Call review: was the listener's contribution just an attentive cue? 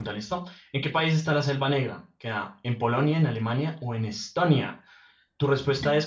No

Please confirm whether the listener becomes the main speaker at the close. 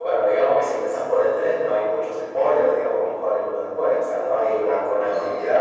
No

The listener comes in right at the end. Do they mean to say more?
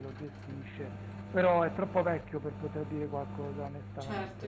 Yes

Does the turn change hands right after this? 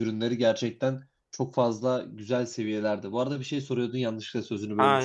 Yes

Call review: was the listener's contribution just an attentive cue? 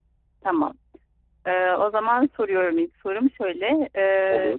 Yes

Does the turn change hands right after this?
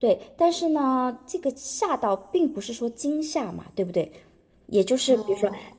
No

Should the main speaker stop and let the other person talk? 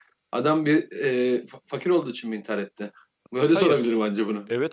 Yes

